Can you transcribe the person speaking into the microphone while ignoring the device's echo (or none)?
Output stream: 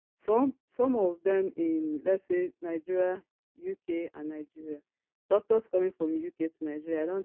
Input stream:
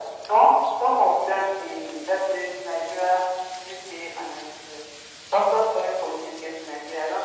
none